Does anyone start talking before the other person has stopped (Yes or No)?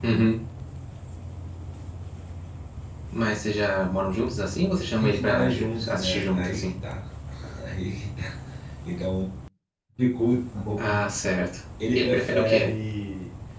Yes